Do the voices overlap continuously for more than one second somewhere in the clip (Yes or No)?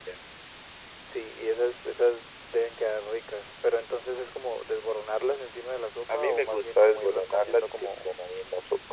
Yes